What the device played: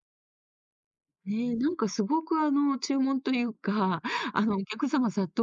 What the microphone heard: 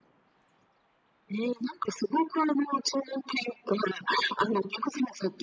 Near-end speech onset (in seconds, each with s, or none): none